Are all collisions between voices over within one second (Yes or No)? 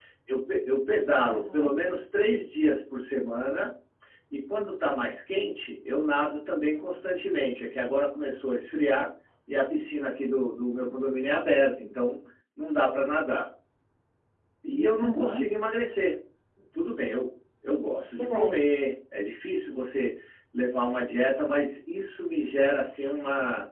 Yes